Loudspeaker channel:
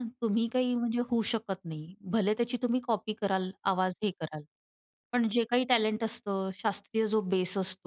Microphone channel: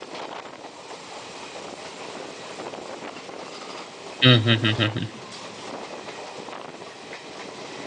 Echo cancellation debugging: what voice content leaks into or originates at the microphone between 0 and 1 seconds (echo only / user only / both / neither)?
neither